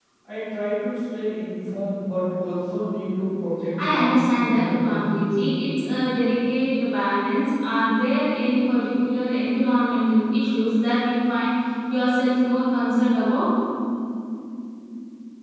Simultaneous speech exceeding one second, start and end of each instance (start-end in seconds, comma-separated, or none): 3.8-5.1